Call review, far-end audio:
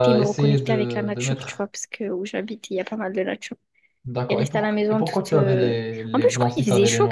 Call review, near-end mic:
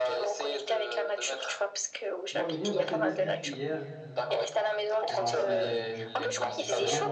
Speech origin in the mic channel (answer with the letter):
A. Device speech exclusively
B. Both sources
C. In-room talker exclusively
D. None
B